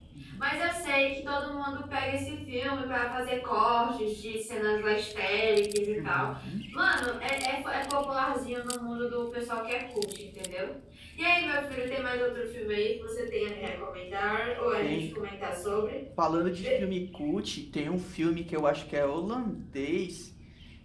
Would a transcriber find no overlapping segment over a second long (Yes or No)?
Yes